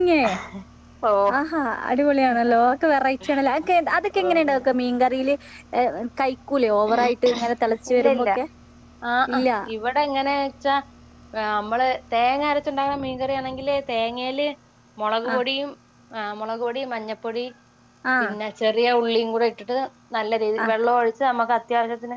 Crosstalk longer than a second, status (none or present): none